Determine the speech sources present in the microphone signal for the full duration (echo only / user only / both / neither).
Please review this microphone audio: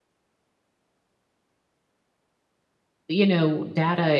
user only